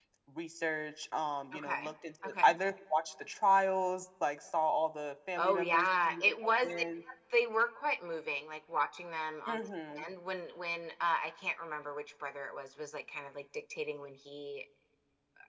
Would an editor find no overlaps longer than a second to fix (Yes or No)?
No